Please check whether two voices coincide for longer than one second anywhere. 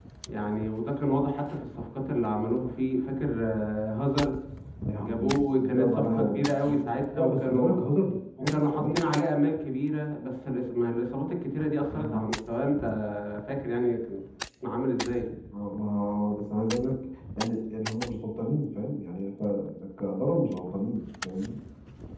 Yes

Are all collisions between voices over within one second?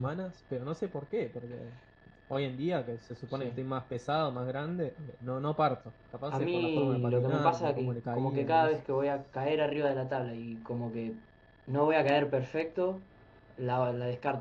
No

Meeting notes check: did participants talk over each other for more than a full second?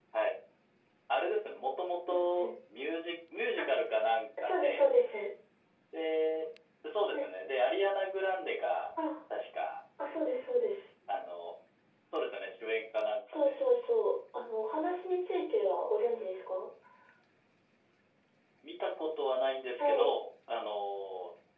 No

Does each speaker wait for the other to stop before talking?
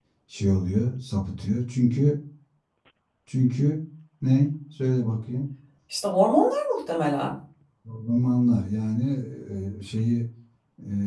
Yes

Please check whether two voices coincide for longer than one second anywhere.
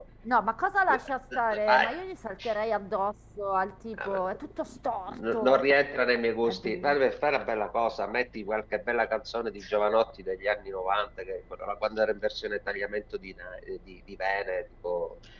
No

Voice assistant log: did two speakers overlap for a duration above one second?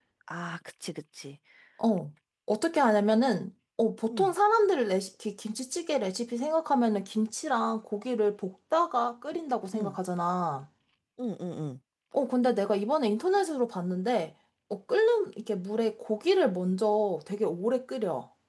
No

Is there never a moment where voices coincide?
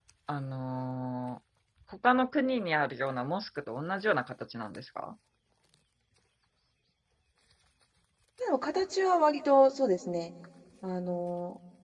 Yes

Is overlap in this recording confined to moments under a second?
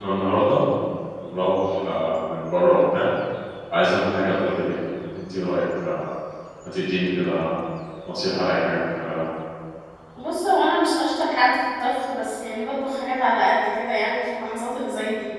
Yes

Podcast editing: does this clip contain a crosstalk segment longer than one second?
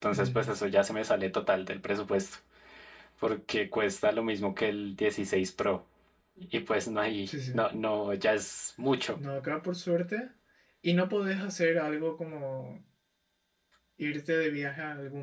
No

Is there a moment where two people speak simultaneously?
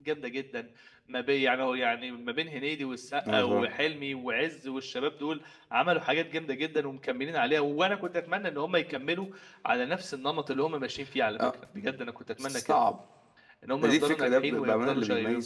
Yes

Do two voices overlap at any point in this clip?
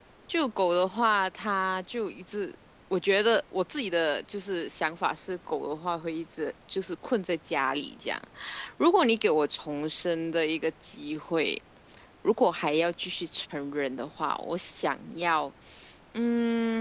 No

